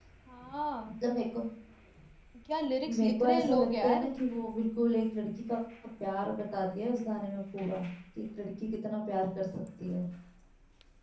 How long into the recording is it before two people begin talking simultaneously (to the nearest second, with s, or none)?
3 s